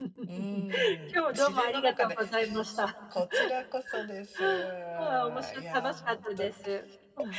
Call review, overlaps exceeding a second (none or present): present